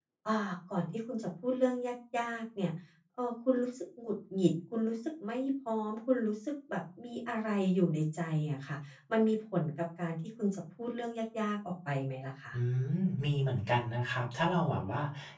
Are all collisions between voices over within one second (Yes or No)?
Yes